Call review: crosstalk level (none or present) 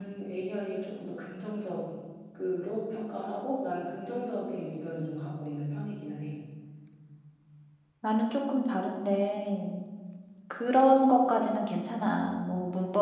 none